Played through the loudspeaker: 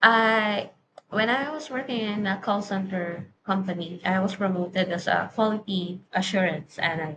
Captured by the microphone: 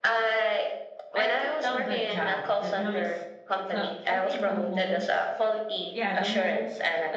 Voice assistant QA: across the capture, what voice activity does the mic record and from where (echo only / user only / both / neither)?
both